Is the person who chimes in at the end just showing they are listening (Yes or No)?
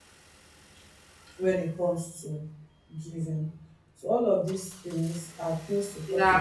No